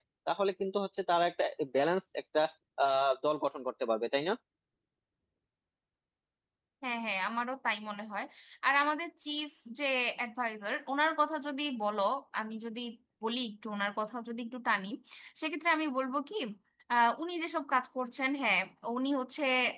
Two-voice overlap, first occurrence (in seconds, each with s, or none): none